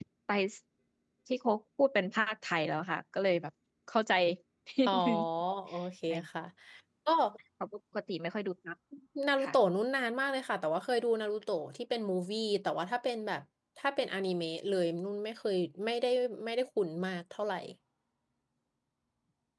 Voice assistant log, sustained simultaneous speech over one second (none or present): none